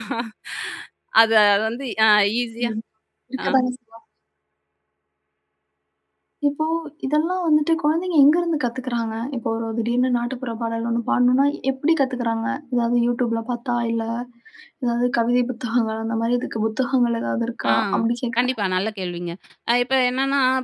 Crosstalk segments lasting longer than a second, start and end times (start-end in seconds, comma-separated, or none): none